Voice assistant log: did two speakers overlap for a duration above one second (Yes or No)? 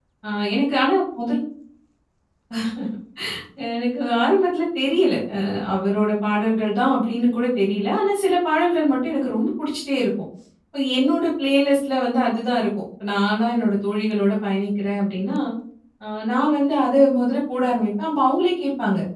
No